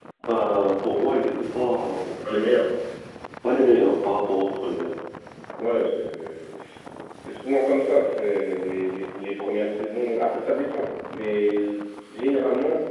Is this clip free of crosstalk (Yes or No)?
Yes